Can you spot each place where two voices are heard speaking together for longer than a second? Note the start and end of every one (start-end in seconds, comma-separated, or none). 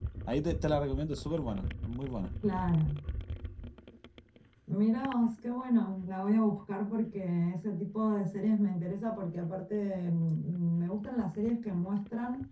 none